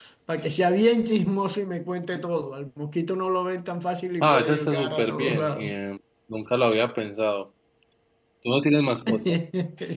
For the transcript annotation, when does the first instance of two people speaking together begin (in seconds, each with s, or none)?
4.2 s